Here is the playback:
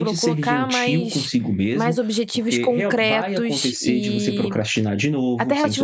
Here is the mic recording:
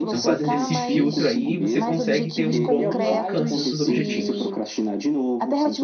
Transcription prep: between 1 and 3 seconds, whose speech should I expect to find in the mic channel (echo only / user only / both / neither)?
both